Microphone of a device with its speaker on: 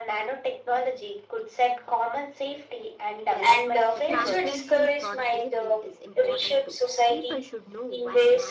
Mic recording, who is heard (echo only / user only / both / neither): both